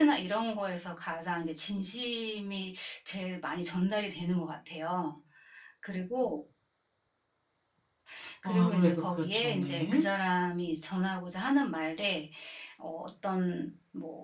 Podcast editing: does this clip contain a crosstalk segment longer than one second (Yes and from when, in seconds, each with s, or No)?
Yes, from 8.4 s